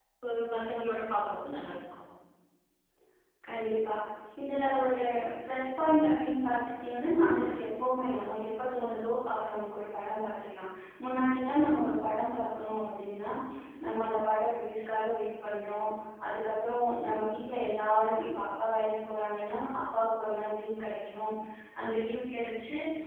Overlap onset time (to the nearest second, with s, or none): none